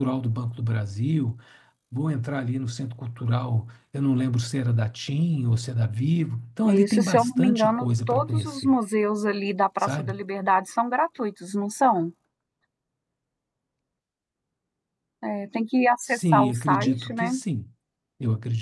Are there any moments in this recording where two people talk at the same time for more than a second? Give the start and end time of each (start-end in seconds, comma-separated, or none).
6.6-8.7, 16.1-17.3